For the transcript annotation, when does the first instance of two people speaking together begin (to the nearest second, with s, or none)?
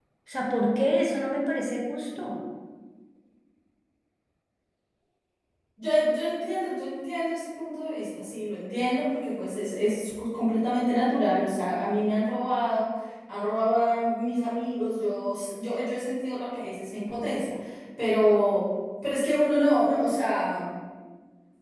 none